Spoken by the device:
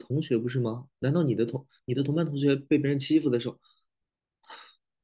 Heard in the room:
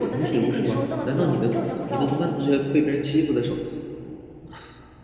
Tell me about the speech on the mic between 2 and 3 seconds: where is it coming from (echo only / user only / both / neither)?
both